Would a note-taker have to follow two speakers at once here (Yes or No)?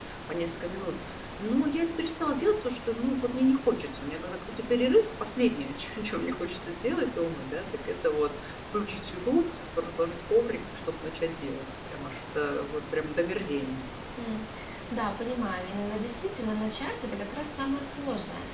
No